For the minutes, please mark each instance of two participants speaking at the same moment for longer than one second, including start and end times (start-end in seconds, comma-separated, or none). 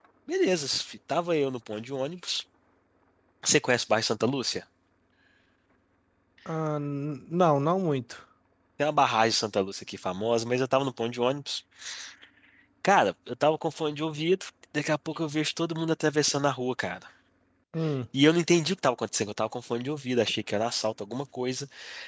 none